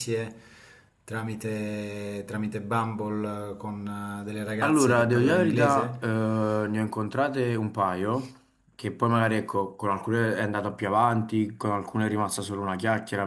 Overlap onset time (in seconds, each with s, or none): 4.6 s